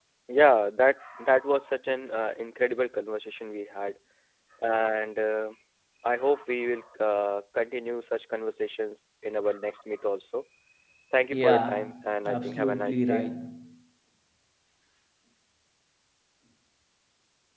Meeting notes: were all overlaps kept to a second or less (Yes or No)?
No